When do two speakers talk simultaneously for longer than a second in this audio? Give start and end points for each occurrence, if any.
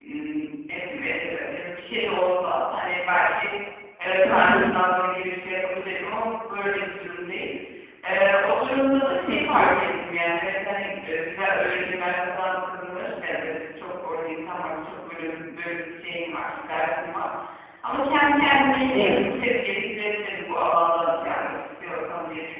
none

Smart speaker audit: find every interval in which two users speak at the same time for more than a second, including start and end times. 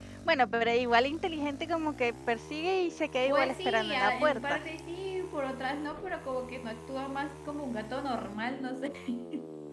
3.2-4.6

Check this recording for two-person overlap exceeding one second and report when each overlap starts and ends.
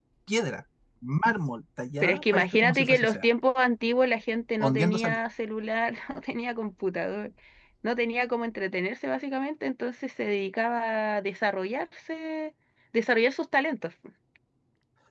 2.0-3.3

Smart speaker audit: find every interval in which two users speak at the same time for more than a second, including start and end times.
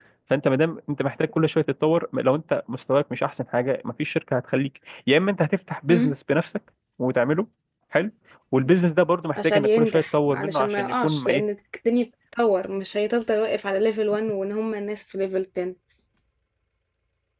9.4-11.4

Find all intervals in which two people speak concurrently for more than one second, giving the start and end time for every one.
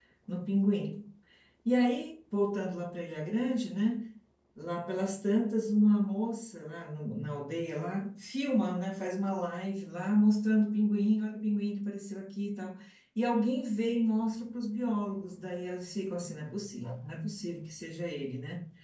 none

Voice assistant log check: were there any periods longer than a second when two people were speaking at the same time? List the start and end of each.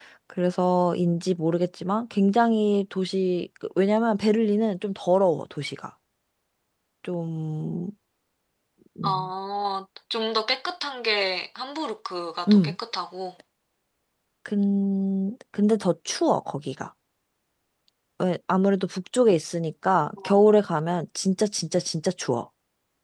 none

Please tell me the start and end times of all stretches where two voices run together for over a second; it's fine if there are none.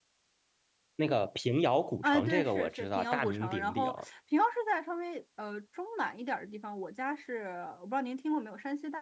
2.0-3.9

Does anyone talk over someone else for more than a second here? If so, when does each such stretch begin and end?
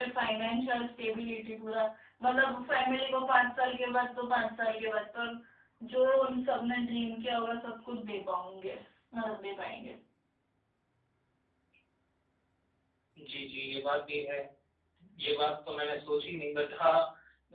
none

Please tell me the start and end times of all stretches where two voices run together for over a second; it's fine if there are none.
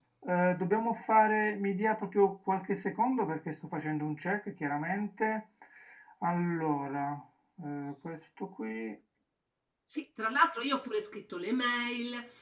none

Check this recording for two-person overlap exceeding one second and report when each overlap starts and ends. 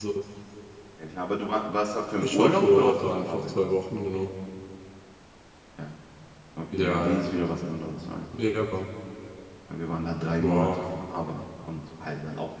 2.2-3.7

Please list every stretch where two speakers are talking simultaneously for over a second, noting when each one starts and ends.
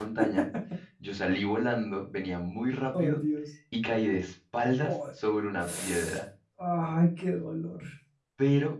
none

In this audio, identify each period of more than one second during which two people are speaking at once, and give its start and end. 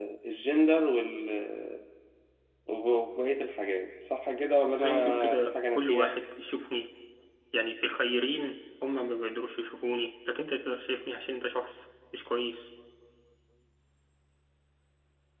4.7-6.1

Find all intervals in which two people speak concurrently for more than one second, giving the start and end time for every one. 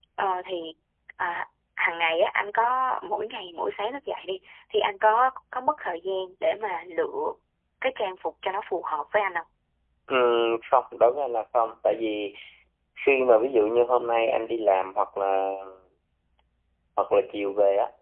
none

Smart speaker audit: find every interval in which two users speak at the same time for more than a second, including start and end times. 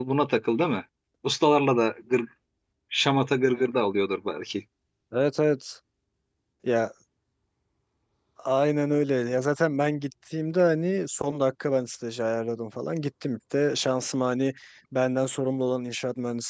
none

